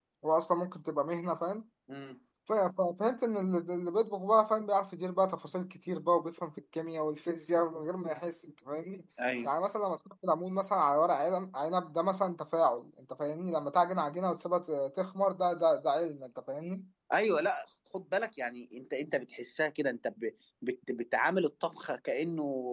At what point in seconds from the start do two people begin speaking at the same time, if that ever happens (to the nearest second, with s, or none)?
none